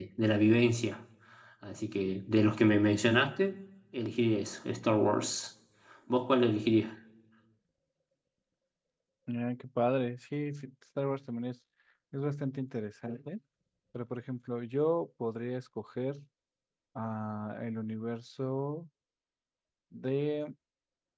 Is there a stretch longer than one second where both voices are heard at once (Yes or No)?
No